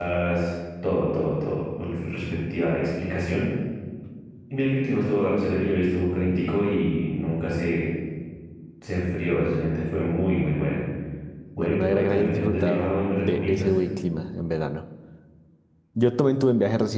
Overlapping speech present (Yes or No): Yes